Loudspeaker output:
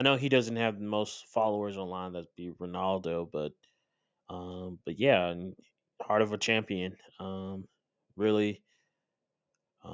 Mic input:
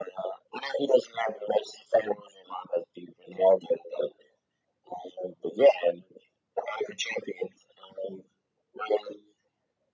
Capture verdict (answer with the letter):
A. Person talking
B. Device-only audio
B